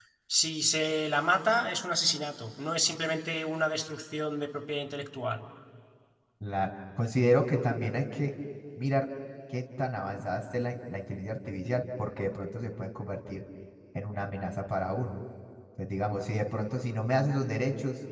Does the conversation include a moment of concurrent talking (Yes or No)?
No